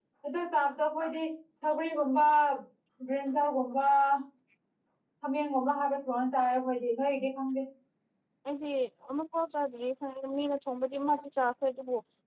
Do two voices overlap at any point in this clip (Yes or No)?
No